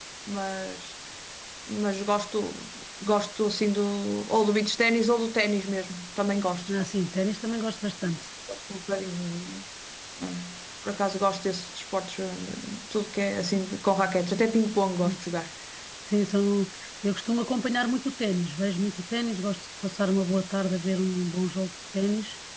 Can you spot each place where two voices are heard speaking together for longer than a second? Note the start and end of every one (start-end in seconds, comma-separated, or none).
none